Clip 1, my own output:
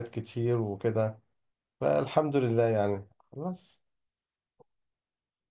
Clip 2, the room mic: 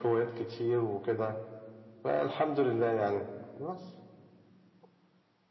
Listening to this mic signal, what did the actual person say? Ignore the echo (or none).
none